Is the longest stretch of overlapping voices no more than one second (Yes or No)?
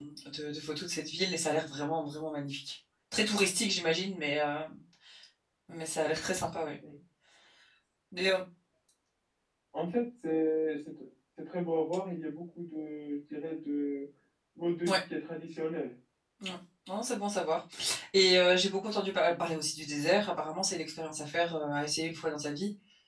Yes